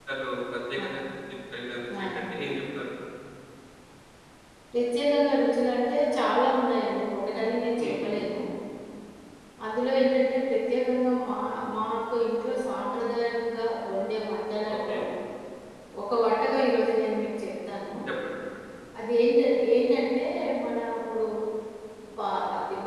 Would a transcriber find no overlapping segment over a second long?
Yes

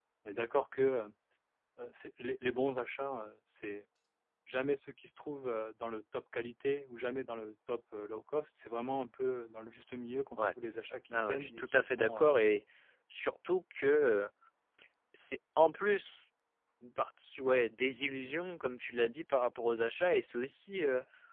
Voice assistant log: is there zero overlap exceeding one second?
No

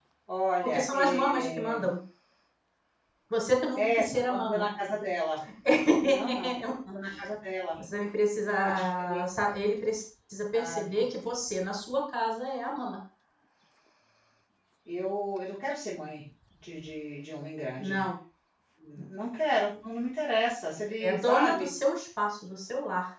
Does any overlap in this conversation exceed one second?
Yes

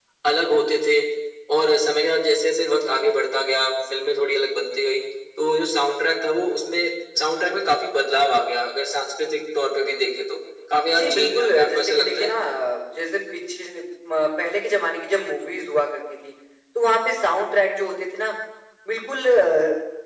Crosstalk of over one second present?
Yes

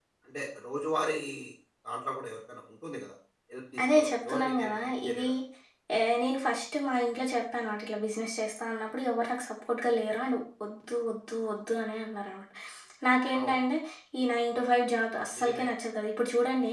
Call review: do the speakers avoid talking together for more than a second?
No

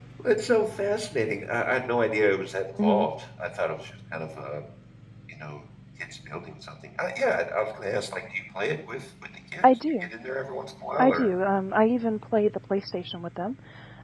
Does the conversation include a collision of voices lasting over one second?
No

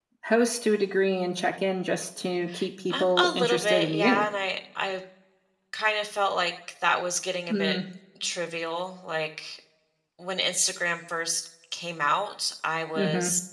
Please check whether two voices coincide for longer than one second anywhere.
Yes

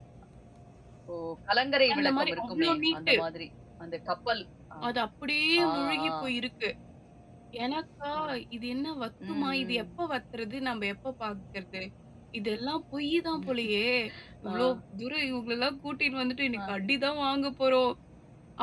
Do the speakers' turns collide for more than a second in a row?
Yes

